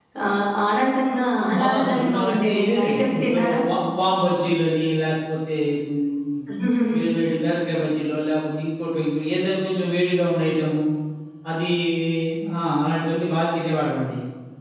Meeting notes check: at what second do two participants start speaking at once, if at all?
1.5 s

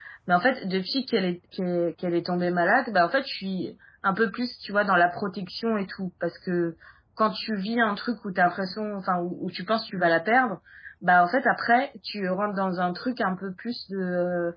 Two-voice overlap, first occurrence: none

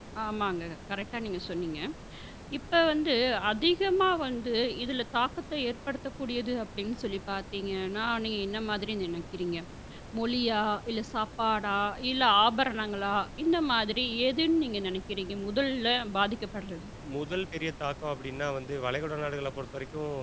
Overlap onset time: none

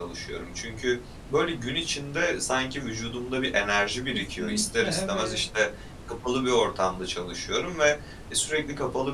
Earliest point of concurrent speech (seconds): 4.1 s

